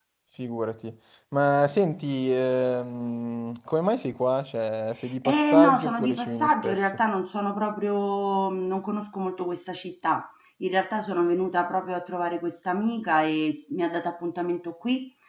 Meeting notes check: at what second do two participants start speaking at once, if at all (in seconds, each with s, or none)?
5.2 s